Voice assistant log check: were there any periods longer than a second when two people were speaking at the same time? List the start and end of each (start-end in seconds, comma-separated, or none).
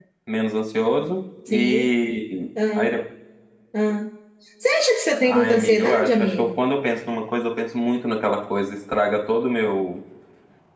5.2-6.6